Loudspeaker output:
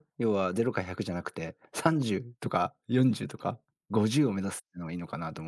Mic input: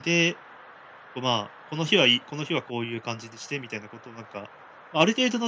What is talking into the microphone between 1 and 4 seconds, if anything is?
user only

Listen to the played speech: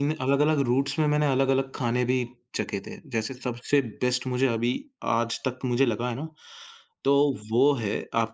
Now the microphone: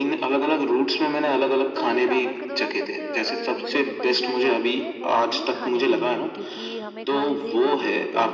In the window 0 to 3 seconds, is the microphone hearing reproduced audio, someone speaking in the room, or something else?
both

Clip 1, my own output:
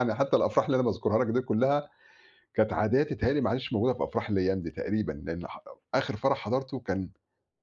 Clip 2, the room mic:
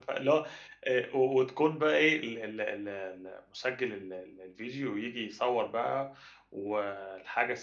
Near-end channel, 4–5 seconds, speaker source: user only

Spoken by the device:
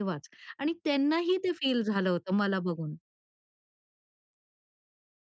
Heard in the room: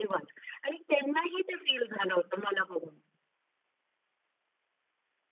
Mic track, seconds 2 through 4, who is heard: echo only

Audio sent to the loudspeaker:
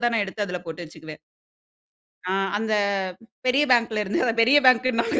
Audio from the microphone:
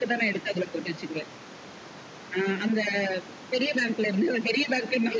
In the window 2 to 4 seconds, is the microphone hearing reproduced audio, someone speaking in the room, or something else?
echo only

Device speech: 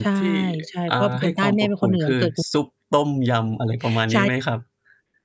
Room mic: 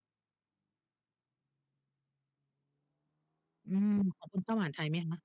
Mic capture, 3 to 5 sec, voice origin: user only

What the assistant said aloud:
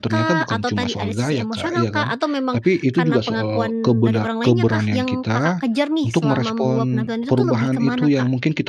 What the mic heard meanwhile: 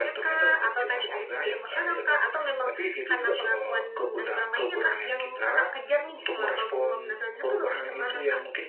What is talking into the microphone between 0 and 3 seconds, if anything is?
echo only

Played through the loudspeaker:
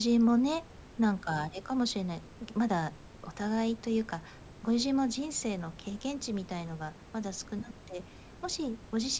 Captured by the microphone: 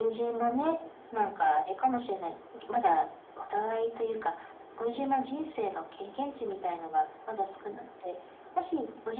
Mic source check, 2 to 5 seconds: echo only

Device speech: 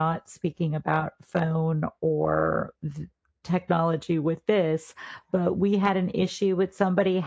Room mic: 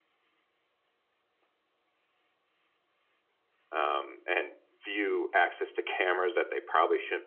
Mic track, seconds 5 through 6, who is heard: user only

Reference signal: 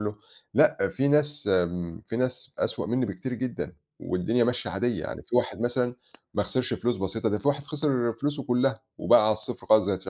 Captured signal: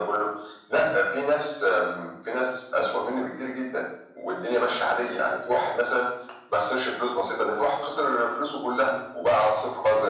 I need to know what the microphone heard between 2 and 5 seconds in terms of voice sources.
echo only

